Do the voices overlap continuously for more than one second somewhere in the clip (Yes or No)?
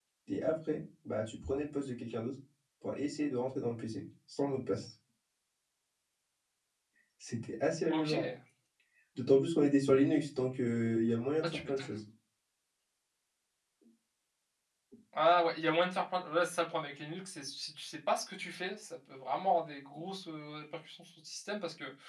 No